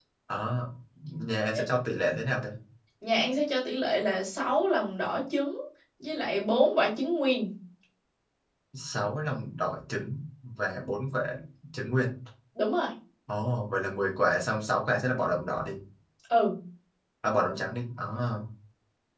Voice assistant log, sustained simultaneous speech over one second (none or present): none